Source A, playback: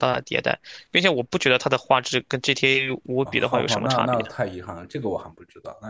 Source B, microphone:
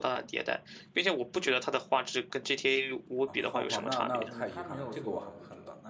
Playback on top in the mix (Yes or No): Yes